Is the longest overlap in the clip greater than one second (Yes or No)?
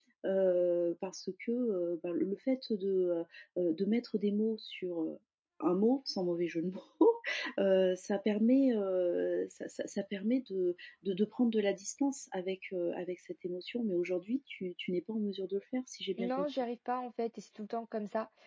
No